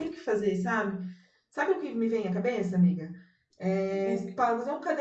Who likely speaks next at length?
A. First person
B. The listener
A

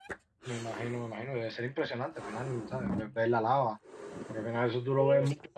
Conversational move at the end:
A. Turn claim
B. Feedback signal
B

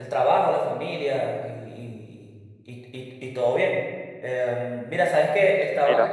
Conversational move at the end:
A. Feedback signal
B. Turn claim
A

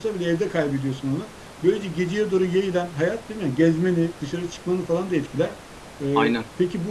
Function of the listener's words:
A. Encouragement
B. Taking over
A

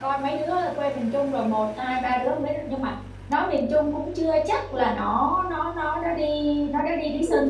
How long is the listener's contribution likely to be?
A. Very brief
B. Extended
B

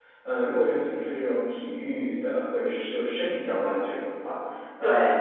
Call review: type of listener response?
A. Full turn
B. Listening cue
B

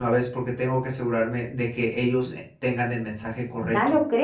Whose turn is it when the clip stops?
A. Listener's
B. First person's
A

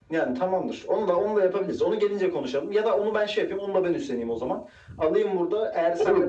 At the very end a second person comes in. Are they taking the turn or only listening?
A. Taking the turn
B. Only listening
A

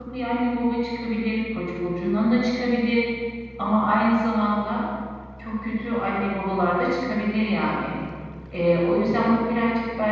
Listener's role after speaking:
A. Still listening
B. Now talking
A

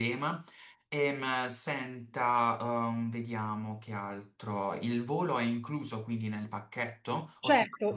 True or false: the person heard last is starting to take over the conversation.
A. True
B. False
A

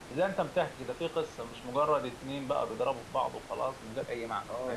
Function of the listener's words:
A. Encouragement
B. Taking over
B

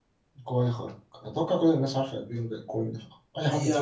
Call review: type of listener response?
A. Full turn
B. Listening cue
A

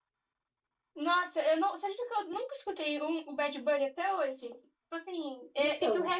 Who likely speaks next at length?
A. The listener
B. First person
B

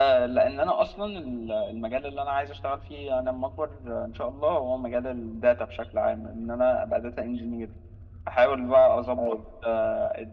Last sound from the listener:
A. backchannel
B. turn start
A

